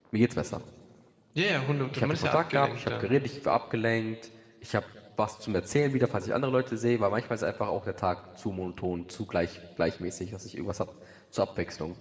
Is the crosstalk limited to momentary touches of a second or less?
No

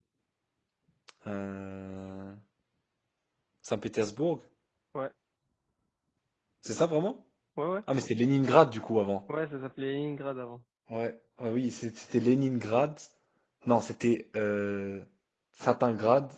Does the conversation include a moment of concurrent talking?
No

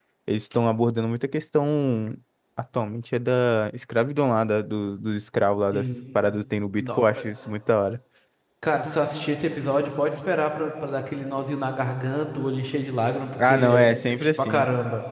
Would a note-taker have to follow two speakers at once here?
Yes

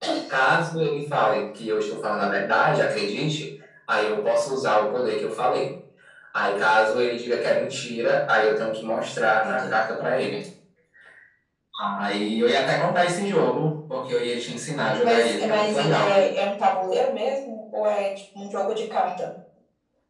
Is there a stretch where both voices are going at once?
Yes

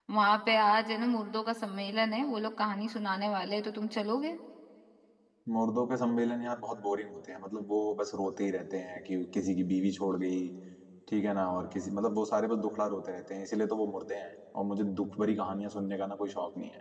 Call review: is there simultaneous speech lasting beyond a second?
No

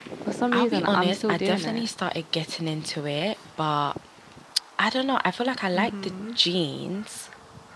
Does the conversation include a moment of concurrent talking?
Yes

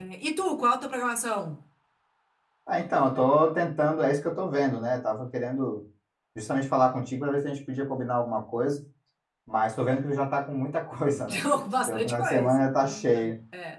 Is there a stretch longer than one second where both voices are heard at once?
Yes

